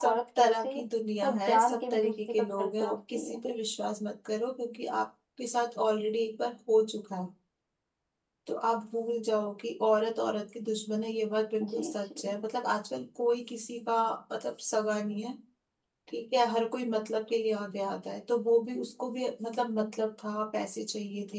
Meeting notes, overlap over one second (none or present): present